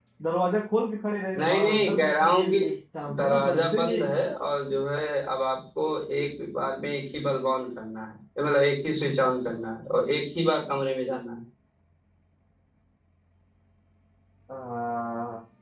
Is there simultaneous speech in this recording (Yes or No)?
Yes